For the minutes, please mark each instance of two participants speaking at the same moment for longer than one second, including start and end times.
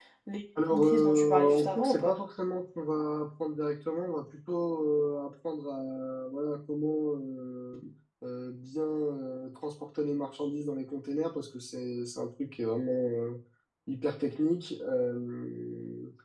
0.7-2.2

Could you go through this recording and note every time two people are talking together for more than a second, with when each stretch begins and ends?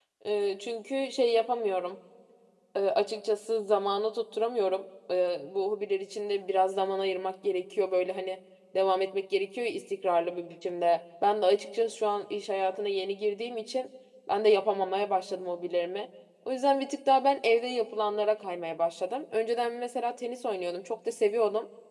none

